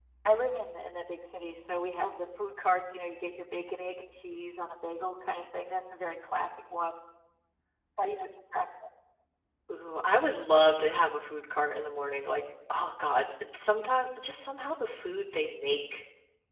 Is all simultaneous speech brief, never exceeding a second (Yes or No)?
Yes